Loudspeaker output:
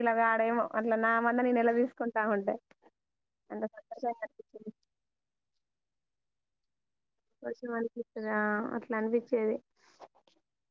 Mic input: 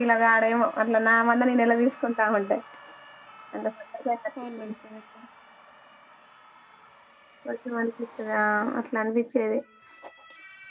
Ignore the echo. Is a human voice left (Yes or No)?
Yes